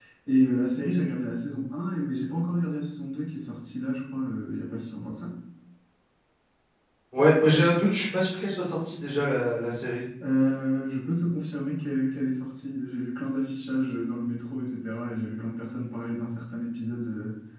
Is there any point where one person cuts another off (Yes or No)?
No